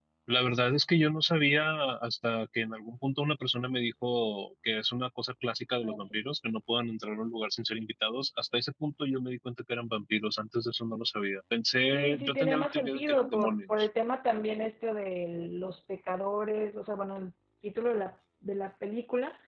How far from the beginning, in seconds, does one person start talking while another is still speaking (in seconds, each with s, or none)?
11.9 s